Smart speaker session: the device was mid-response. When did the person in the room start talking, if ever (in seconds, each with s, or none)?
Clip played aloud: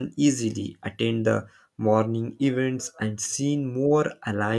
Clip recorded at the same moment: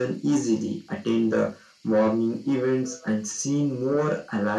none